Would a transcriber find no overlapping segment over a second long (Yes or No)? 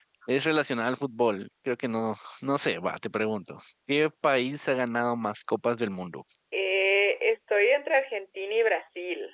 Yes